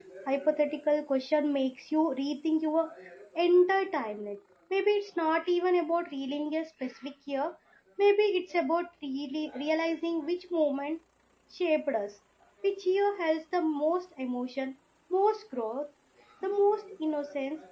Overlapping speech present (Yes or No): No